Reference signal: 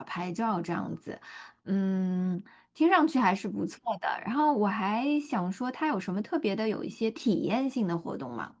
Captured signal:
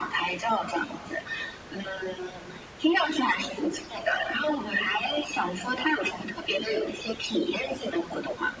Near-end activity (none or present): none